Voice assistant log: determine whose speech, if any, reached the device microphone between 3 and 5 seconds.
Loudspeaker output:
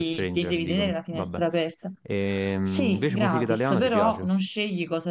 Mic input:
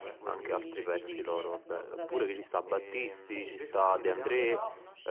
both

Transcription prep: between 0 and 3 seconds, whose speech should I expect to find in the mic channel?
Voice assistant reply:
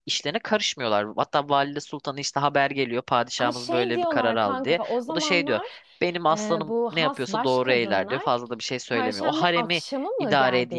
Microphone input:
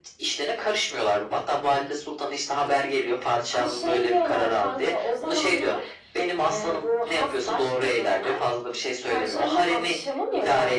echo only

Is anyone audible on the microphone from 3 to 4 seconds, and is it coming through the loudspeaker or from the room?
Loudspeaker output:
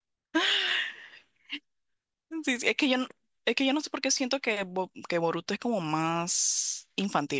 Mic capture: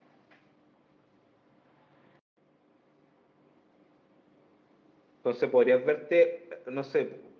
neither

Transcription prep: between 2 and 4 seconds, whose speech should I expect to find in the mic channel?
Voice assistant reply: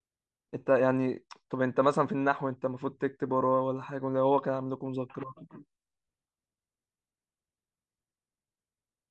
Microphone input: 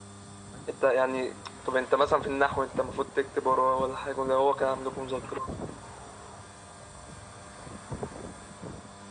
echo only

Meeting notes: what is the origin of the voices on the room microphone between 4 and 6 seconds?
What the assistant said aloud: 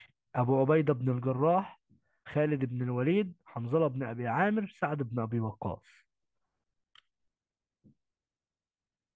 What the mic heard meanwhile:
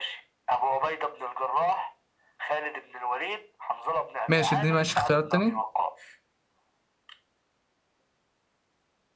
both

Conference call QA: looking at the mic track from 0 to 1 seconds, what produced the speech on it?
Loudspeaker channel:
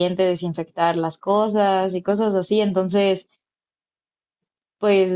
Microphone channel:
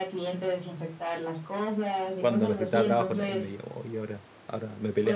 echo only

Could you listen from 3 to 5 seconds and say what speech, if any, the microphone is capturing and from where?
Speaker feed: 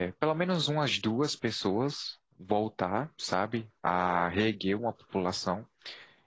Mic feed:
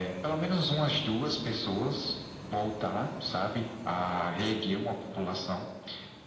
echo only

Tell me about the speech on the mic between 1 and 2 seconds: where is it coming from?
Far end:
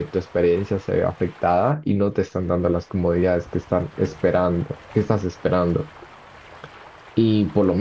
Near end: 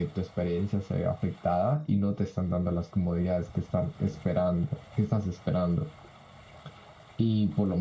echo only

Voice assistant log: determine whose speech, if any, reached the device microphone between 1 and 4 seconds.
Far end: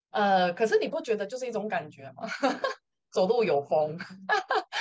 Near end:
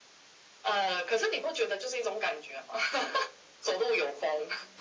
echo only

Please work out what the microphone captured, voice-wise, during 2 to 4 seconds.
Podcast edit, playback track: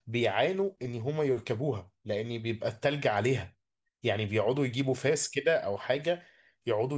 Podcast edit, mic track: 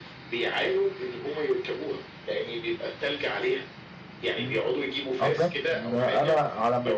echo only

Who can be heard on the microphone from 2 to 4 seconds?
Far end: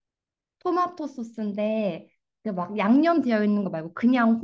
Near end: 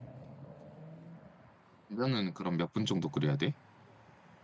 user only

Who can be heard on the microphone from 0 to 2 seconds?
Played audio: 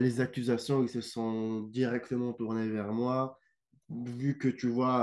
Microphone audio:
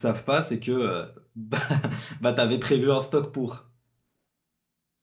user only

